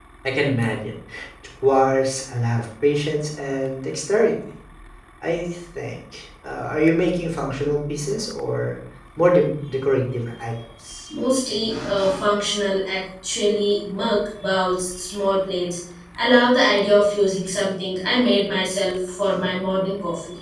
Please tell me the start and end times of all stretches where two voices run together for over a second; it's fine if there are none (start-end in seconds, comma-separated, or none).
none